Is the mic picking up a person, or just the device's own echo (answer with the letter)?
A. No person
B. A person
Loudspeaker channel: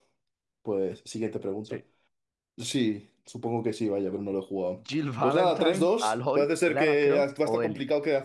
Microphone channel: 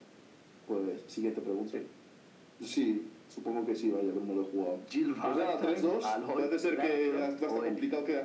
A